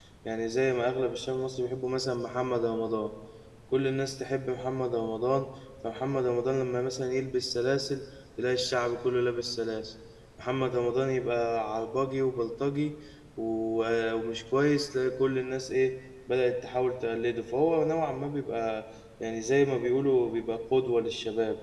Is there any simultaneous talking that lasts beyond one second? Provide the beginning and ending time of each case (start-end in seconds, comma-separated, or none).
none